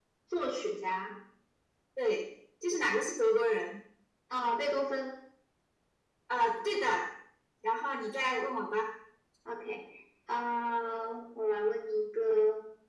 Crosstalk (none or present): none